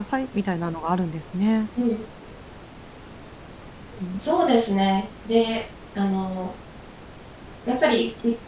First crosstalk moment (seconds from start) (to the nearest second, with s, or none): none